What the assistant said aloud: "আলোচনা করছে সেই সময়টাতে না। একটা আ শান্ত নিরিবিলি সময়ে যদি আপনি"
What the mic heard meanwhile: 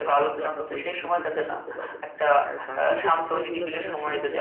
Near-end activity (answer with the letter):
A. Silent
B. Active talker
B